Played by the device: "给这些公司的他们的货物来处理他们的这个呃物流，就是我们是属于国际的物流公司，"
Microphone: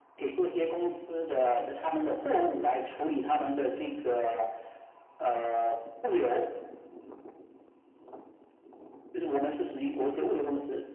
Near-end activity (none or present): none